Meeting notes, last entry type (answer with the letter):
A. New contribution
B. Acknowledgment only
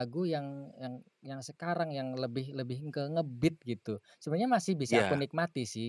B